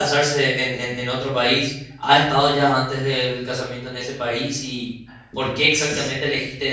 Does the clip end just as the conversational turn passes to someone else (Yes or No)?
No